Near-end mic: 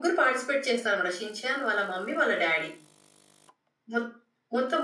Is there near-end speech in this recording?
No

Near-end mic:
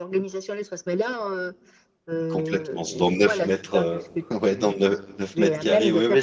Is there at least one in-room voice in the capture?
Yes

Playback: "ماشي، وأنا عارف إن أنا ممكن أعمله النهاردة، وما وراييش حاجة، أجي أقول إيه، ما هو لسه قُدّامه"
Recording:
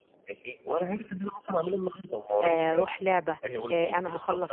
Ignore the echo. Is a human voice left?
Yes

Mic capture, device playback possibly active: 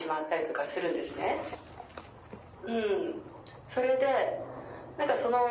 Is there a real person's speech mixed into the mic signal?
No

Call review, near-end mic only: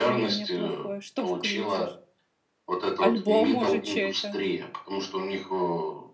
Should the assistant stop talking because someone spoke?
Yes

